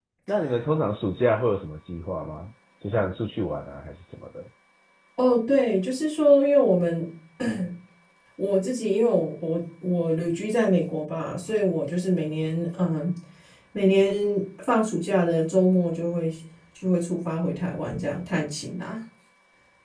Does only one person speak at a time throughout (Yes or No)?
Yes